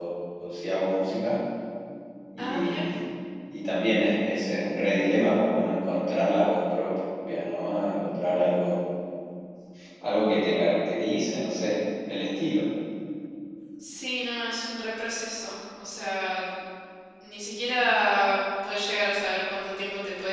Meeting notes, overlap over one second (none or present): none